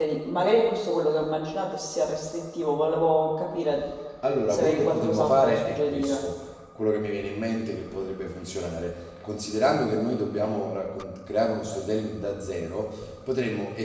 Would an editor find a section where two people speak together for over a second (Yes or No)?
Yes